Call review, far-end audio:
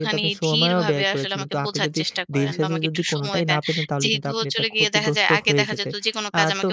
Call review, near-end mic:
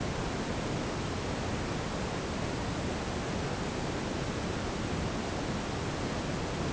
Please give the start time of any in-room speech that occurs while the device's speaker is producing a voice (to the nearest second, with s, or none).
none